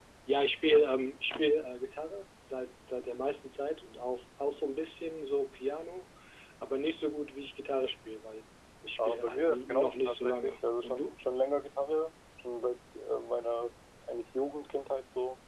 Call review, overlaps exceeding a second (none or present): present